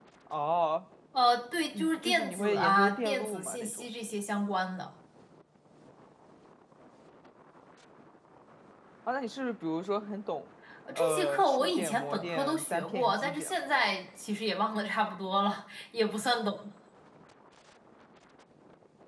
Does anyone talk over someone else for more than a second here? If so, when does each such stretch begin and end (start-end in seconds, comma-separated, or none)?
1.7-3.9, 10.9-13.6